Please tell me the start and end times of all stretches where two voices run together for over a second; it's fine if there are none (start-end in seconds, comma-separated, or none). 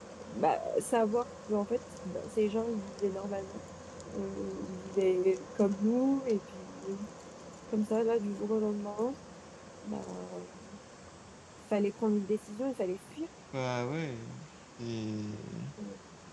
none